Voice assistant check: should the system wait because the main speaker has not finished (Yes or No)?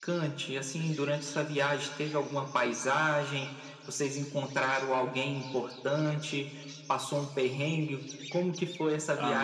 No